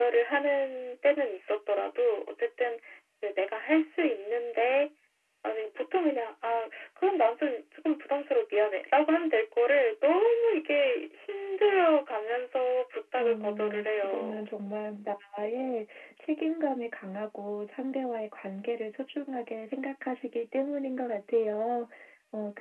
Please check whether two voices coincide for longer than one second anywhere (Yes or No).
Yes